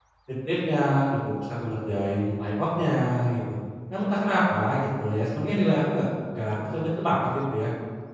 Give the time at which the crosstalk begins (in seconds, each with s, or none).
none